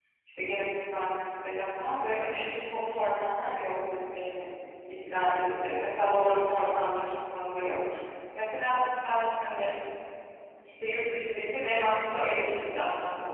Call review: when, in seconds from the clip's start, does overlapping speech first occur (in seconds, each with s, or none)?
none